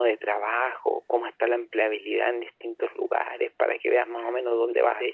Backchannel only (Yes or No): No